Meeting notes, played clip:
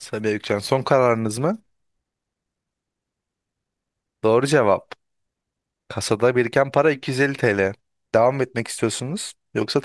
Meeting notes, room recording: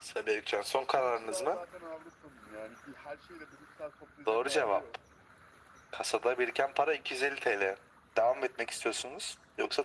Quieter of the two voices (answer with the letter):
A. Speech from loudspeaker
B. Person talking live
B